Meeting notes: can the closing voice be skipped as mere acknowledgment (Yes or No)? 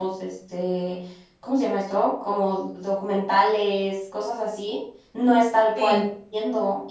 Yes